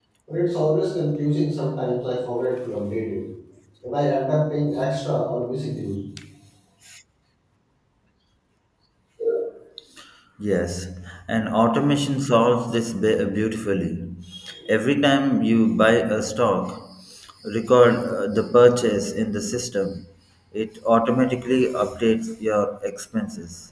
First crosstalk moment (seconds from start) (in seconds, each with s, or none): none